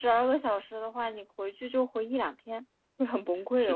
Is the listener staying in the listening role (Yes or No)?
No